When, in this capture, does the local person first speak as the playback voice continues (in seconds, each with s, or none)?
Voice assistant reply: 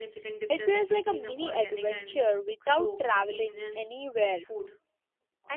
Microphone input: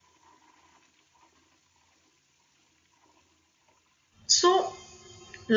4.3 s